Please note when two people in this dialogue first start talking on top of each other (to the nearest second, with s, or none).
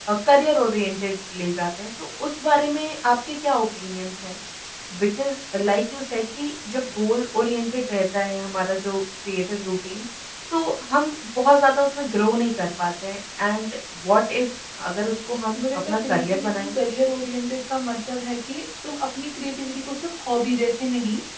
16 s